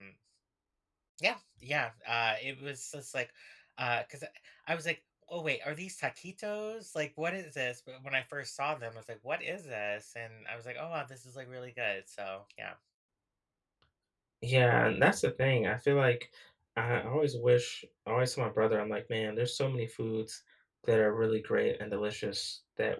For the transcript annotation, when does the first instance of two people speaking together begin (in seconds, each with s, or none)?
none